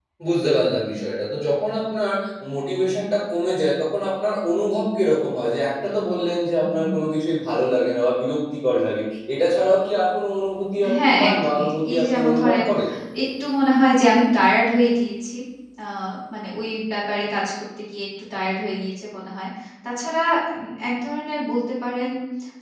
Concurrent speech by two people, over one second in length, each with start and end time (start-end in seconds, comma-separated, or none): 11.0-12.5